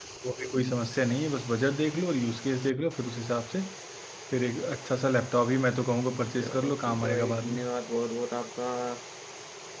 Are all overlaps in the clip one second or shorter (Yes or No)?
No